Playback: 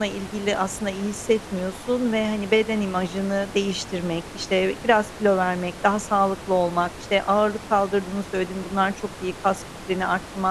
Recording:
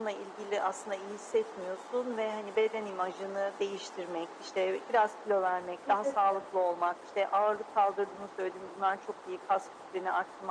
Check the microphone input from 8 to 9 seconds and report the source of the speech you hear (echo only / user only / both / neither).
echo only